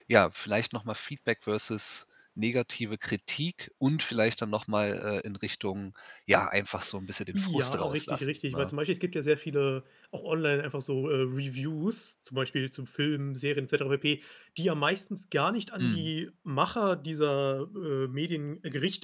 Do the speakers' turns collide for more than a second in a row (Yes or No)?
Yes